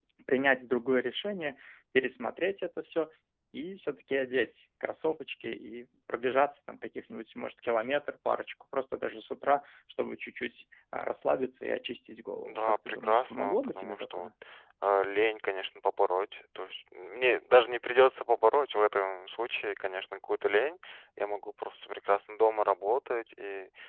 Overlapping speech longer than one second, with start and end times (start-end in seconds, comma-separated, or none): 12.4-14.3